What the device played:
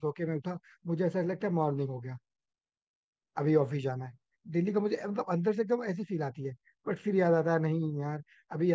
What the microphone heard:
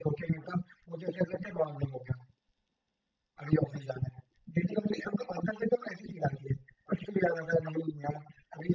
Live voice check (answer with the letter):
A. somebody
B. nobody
B